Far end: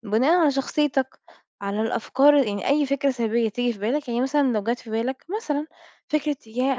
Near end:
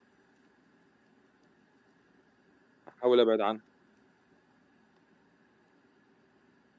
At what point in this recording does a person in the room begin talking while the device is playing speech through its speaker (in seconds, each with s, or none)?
2.9 s